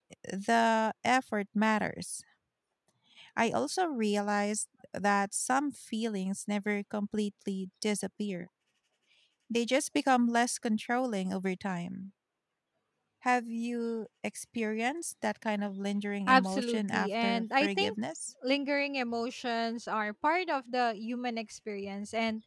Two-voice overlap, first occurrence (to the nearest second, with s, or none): 16 s